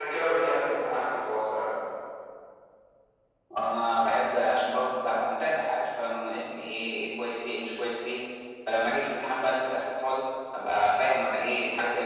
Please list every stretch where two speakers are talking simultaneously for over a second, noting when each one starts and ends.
none

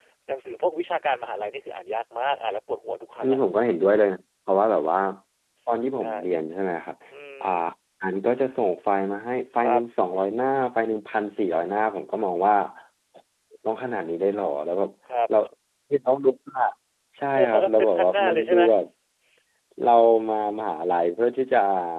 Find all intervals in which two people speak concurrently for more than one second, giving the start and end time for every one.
17.4-18.6

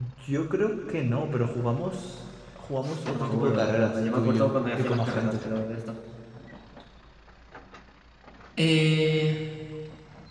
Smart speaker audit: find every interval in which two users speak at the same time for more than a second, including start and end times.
3.1-5.4

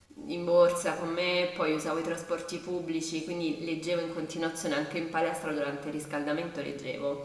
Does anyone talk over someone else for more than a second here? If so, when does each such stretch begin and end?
none

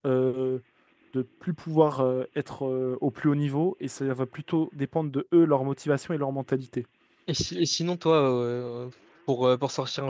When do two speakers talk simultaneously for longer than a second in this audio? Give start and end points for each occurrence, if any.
none

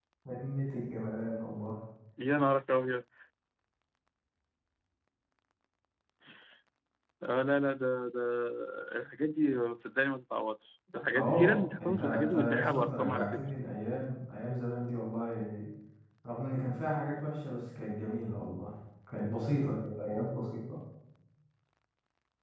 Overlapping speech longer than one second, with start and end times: 11.2-13.4

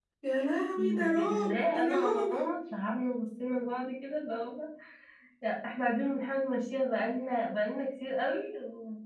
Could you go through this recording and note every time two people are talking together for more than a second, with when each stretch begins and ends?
0.8-2.3

